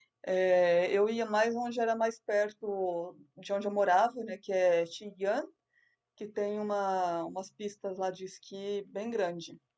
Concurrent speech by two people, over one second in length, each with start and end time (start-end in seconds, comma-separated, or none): none